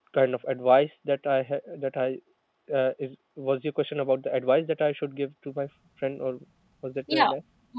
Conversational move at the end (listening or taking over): taking over